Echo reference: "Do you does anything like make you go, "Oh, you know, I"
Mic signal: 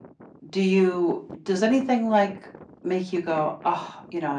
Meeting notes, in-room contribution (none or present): none